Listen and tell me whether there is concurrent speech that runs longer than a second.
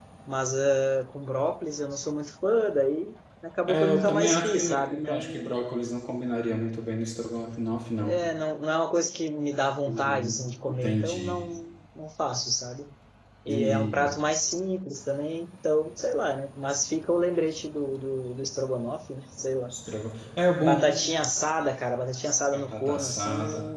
Yes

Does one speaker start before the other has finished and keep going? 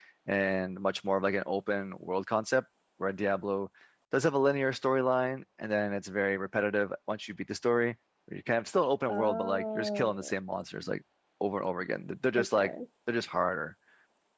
Yes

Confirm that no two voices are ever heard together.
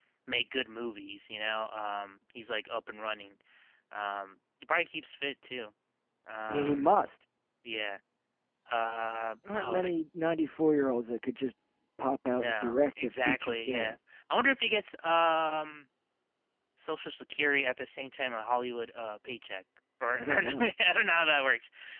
No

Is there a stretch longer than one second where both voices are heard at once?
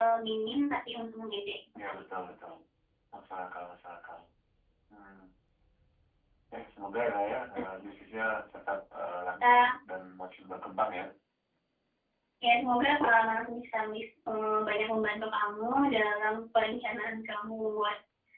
No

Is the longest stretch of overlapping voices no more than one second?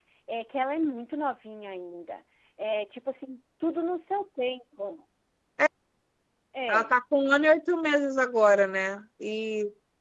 Yes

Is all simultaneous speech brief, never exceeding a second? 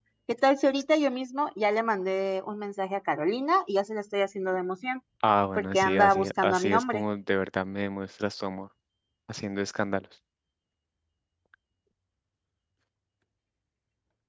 No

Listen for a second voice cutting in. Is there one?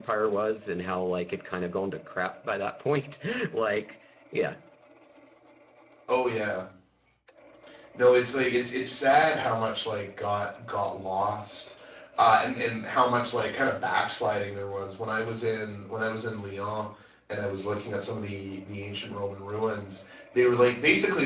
No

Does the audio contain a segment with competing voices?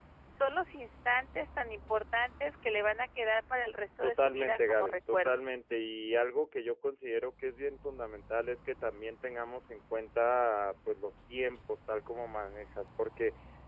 Yes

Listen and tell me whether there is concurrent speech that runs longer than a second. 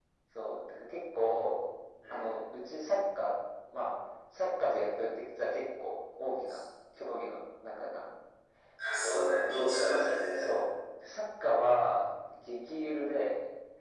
Yes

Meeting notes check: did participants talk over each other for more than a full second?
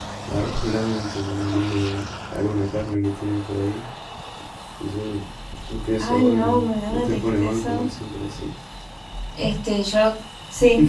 Yes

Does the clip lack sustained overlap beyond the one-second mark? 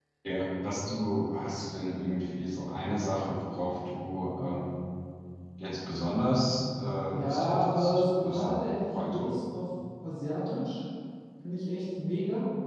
No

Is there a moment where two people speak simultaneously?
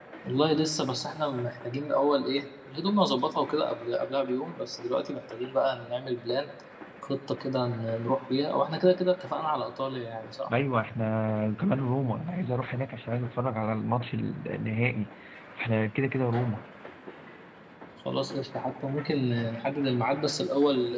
No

